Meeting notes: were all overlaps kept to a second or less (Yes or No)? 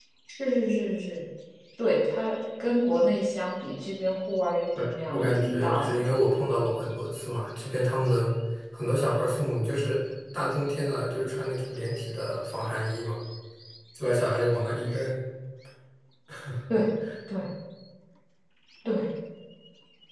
No